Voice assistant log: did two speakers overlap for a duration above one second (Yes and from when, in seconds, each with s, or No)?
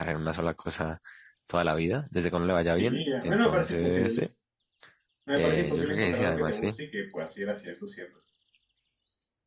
Yes, from 2.8 s